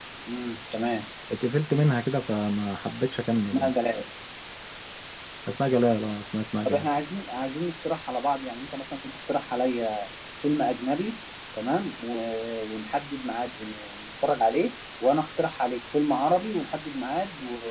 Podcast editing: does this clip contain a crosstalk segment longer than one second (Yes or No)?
No